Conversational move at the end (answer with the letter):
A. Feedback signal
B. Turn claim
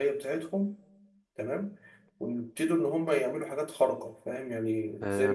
B